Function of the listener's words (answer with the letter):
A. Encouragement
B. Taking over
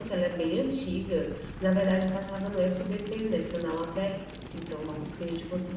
A